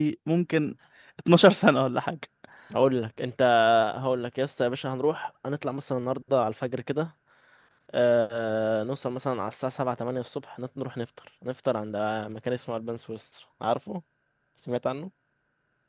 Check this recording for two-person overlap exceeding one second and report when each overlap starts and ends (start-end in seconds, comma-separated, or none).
none